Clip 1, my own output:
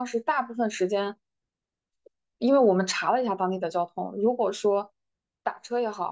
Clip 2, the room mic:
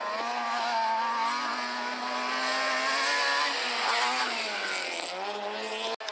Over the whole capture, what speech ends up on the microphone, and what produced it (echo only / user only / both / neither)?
neither